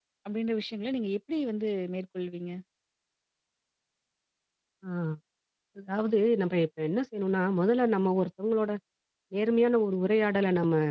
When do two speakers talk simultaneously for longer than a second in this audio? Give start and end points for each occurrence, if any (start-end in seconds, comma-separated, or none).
none